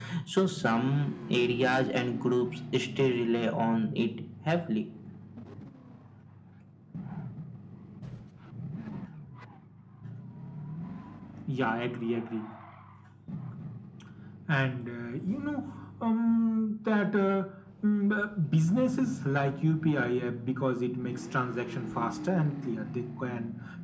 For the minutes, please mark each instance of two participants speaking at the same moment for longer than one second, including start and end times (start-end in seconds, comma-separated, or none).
none